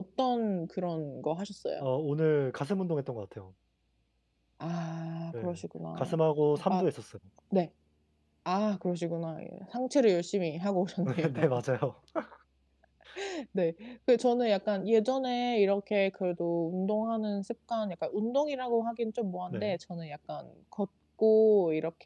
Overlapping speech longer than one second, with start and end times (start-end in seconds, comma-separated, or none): none